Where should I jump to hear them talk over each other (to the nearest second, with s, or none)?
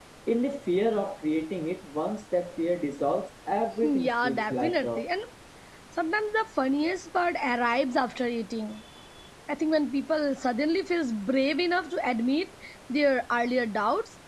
4 s